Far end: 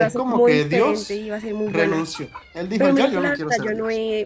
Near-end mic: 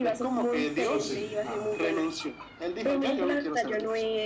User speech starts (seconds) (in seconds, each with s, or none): 0.8 s